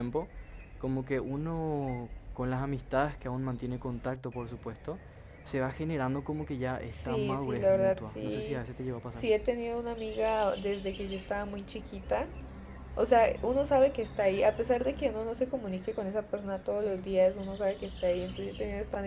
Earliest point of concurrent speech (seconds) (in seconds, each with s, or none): 6.9 s